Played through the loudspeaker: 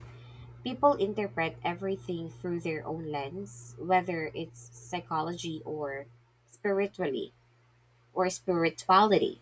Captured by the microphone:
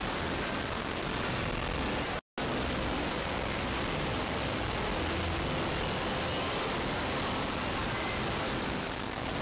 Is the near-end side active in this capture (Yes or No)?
No